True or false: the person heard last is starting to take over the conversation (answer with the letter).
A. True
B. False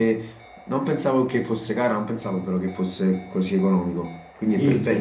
A